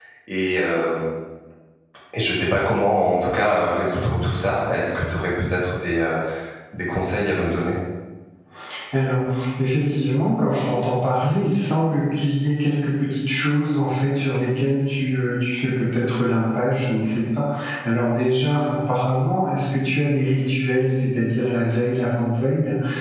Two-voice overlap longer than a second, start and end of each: none

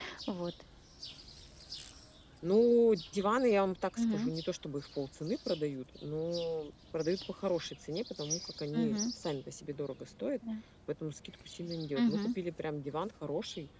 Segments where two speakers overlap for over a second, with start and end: none

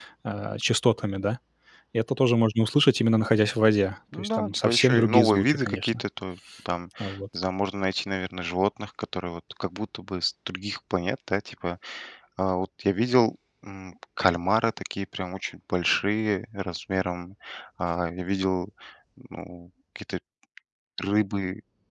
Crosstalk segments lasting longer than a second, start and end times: 4.2-6.0

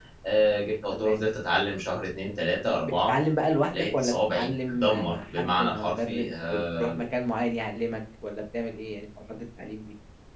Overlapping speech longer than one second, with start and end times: 3.7-7.0

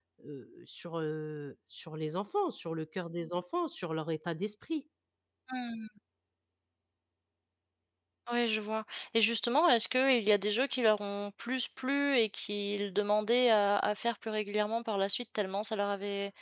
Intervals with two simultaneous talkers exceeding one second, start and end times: none

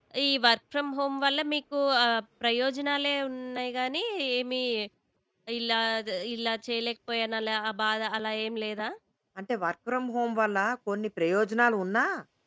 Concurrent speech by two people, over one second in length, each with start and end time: none

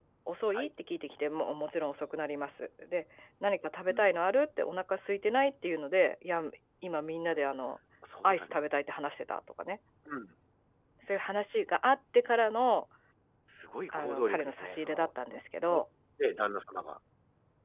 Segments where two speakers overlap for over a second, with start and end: 13.9-15.4

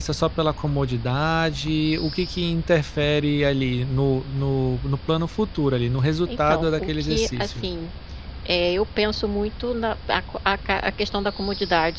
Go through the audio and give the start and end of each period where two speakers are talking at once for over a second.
6.3-7.7

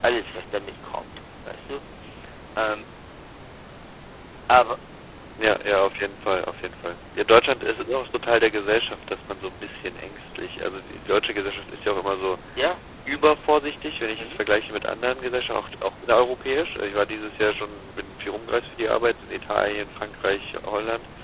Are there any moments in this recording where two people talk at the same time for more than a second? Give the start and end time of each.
none

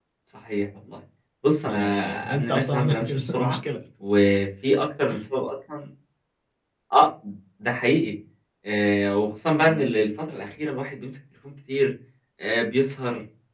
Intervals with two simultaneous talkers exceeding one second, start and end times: 1.6-3.6

